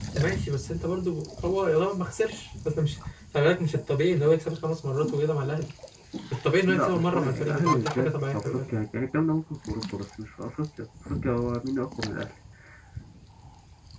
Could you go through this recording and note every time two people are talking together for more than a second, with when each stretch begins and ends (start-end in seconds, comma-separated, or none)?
6.7-8.6